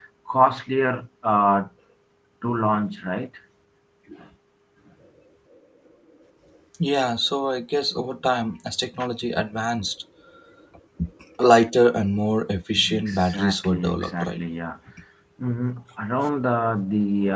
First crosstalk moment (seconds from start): 13 s

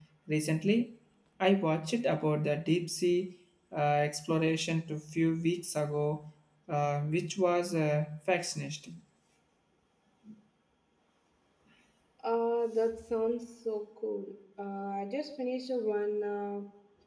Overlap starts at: none

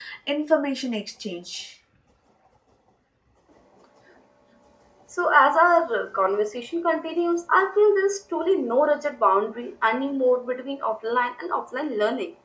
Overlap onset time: none

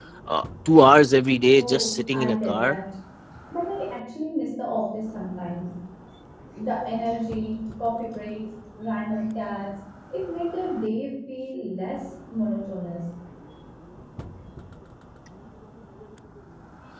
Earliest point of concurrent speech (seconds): 2 s

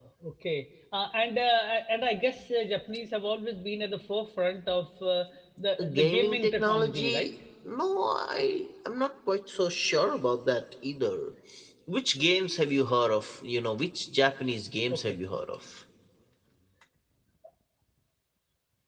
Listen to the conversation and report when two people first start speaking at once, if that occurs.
6 s

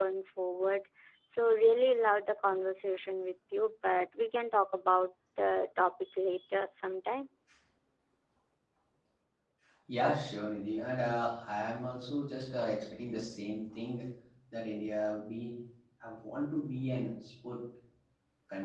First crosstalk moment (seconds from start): none

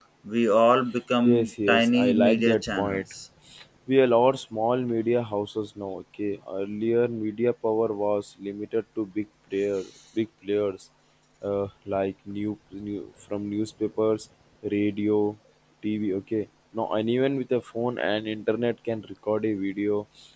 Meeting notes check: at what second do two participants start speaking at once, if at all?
1 s

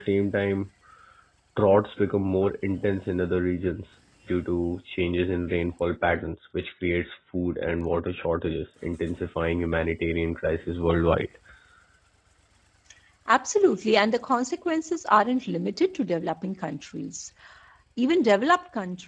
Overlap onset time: none

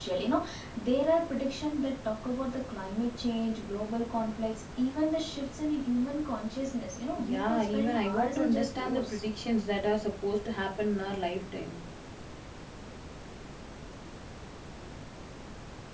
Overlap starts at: 7 s

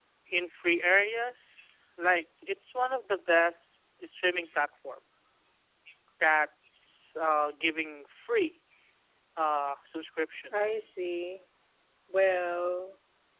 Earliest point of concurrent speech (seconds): none

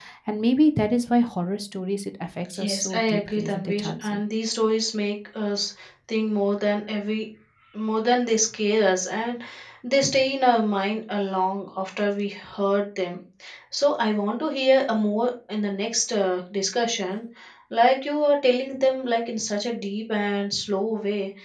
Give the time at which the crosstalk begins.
3 s

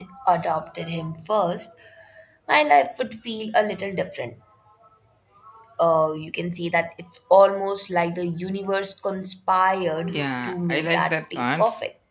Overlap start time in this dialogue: 10 s

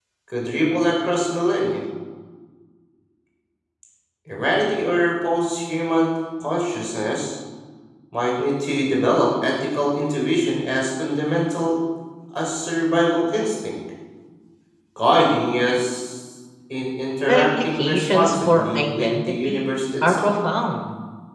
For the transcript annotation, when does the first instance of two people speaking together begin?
17 s

